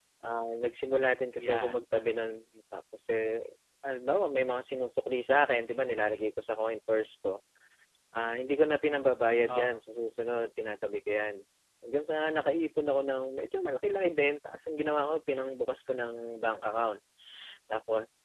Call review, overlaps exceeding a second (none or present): none